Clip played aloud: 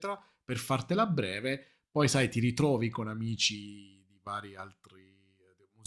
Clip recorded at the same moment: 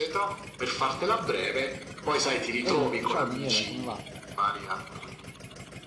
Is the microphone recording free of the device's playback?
No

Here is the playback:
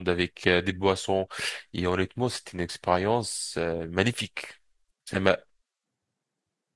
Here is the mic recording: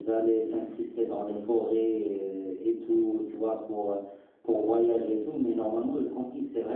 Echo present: No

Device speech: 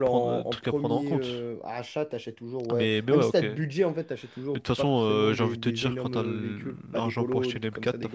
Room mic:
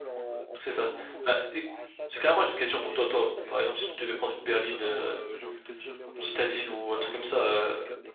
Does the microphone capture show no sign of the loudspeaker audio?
No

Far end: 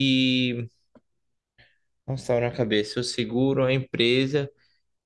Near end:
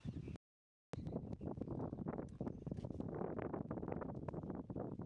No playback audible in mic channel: Yes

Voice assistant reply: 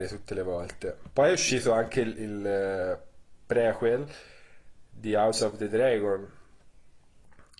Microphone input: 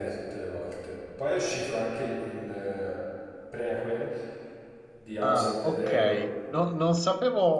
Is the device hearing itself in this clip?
Yes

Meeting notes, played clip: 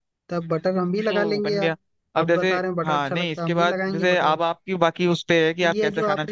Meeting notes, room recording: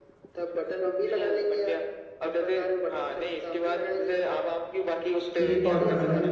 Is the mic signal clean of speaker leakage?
No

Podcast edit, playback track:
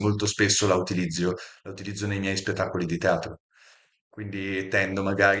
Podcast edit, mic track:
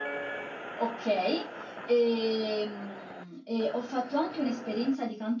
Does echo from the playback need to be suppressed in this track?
No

